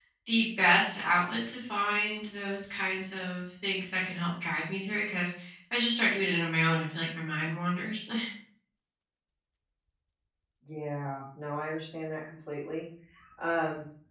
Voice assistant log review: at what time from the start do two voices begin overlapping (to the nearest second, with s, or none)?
none